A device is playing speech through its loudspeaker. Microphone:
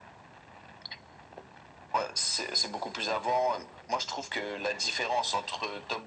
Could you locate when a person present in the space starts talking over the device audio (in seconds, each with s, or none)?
none